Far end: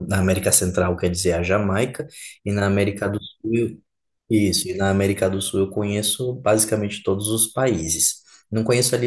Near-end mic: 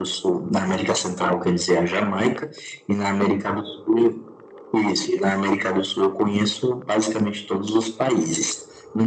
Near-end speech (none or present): none